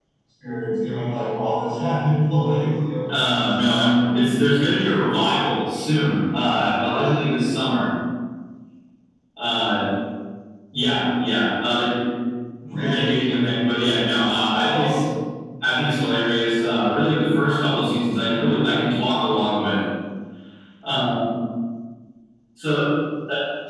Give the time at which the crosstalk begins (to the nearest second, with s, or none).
3 s